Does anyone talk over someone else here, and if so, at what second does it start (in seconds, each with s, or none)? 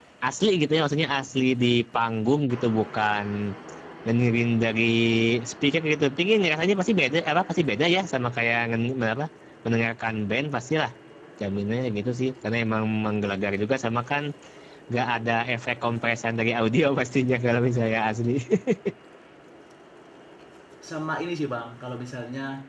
none